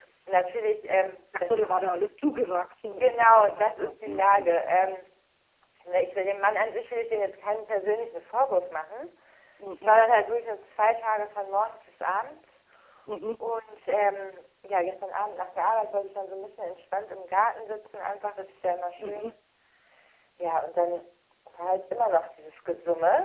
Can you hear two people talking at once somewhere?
Yes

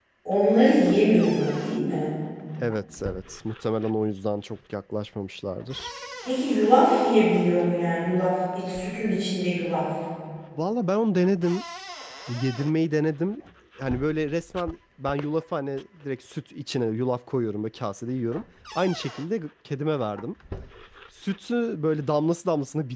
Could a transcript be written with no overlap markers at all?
Yes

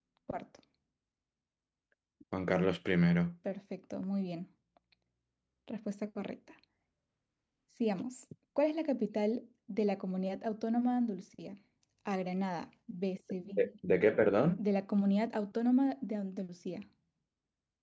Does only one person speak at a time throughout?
Yes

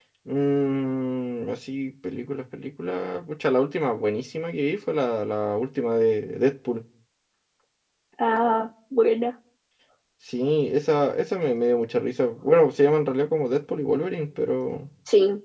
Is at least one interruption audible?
No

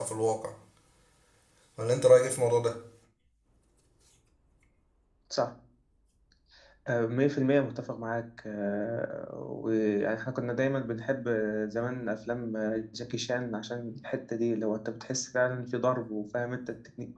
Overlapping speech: No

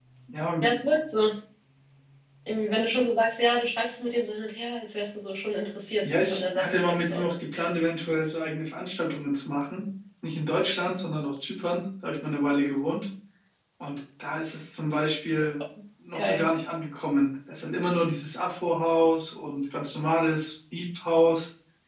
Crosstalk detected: Yes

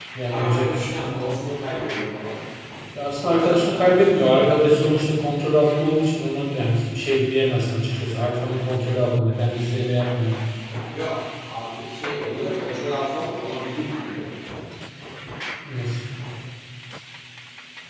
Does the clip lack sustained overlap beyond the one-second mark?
No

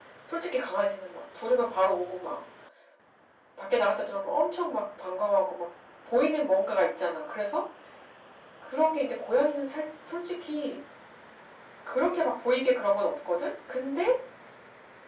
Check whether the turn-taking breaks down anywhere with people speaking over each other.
No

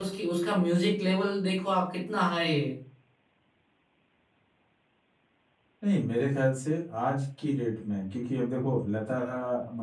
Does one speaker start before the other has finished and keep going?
No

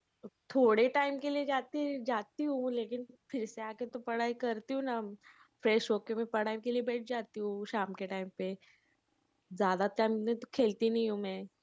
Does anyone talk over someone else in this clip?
No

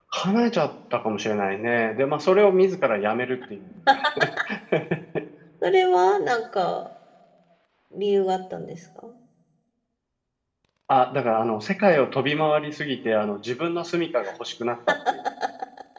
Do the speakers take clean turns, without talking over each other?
Yes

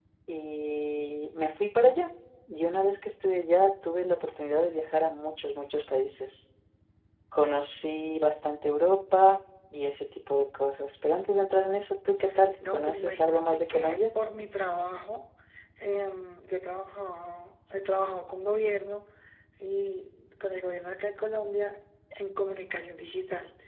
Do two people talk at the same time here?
Yes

